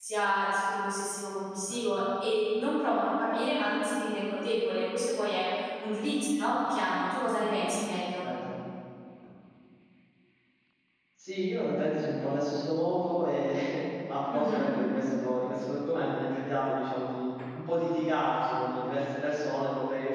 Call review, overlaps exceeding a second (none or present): none